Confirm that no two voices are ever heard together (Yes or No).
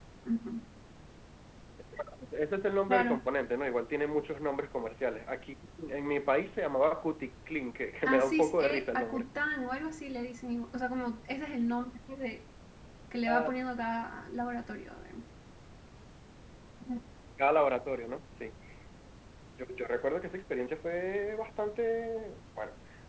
No